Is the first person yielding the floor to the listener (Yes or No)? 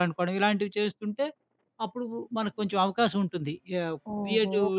Yes